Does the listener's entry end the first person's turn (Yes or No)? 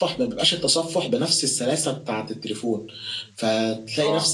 No